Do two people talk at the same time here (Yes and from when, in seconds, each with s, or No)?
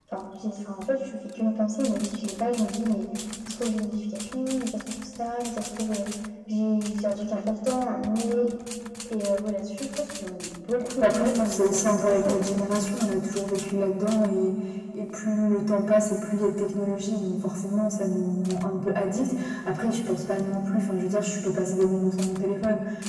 Yes, from 11.0 s